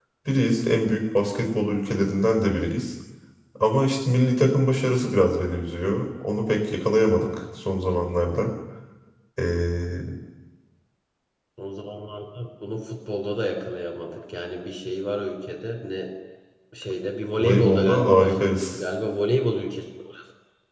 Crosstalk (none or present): present